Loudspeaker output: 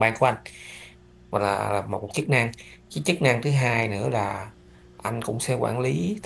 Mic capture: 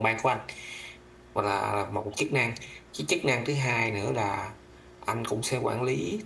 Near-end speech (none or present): none